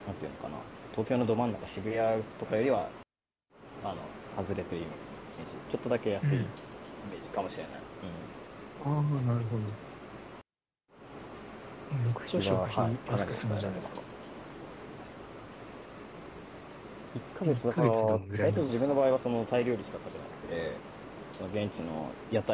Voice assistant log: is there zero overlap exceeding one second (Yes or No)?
No